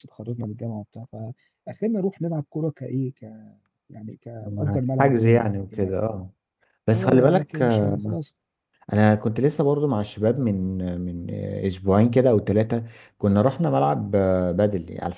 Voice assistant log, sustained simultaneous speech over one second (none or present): present